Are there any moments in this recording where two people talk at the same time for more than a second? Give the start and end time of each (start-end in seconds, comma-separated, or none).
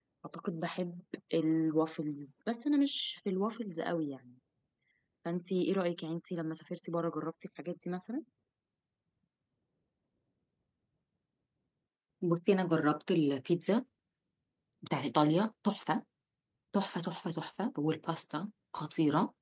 none